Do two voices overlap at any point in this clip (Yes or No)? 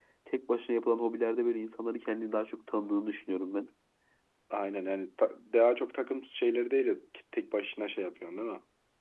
No